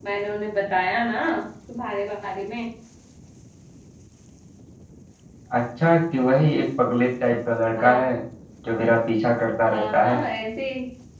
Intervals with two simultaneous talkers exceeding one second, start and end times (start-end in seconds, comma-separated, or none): none